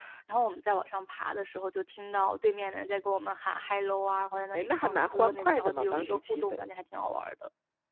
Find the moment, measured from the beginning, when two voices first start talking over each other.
4.5 s

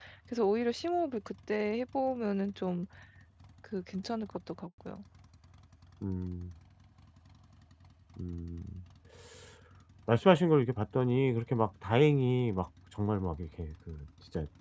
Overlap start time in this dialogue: none

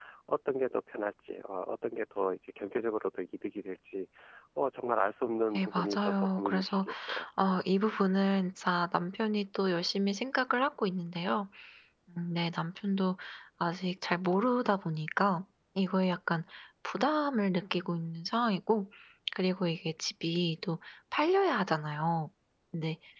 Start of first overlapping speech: 5.5 s

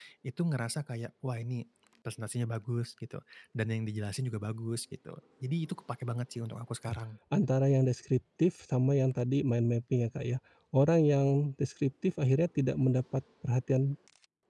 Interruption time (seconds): none

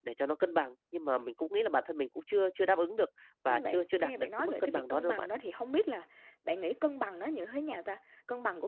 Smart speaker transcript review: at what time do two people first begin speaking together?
3.5 s

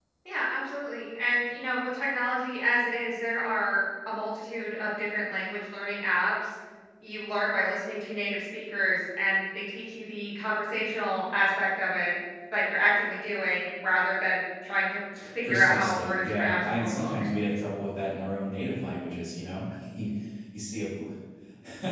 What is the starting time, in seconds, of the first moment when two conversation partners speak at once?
15.4 s

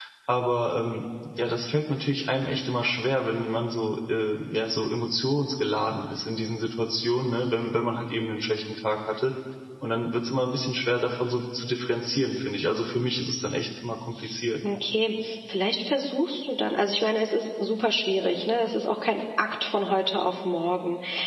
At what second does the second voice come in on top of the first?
none

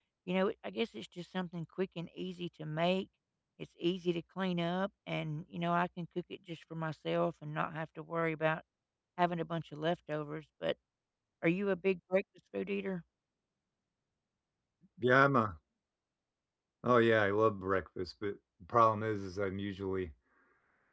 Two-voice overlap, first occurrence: none

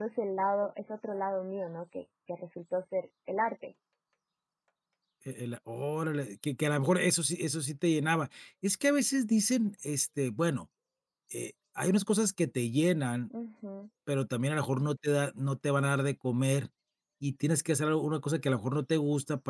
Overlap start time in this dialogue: none

